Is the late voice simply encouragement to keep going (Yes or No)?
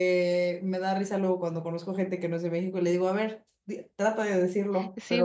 No